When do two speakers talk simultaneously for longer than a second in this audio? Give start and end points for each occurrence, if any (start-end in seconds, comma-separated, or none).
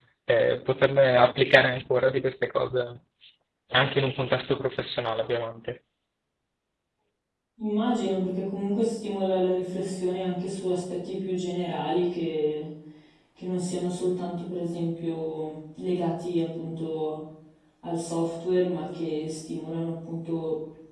none